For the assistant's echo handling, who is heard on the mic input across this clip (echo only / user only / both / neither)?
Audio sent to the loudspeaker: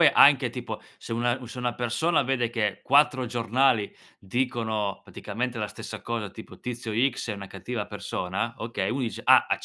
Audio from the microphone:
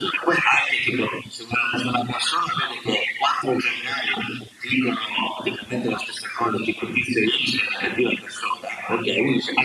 echo only